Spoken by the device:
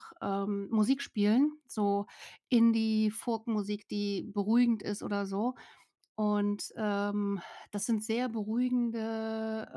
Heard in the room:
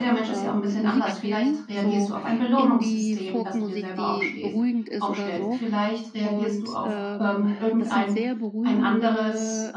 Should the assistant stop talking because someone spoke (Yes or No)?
Yes